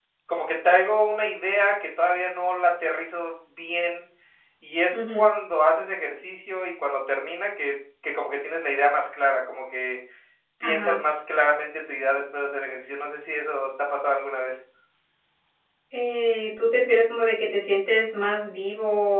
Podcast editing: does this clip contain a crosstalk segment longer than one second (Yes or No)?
No